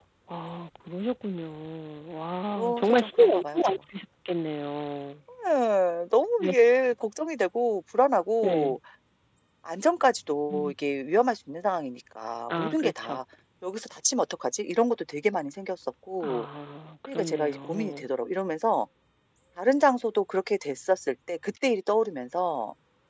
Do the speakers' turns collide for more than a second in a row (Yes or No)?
Yes